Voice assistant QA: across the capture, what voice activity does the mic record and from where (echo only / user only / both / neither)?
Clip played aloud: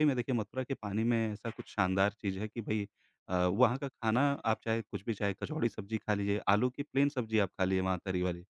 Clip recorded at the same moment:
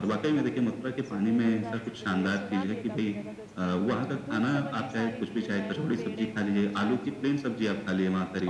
both